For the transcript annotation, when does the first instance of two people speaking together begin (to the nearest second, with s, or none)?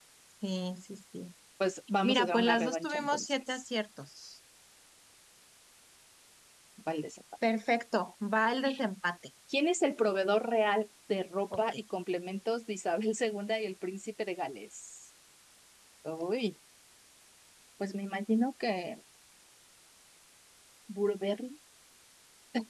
2 s